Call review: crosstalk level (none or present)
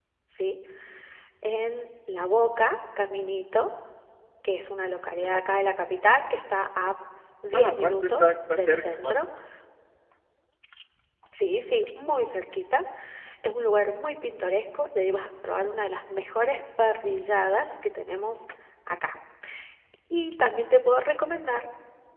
present